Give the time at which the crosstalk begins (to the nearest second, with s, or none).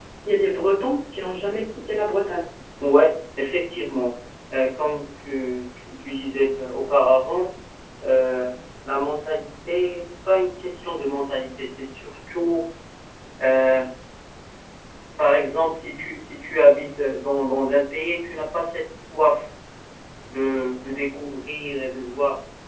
none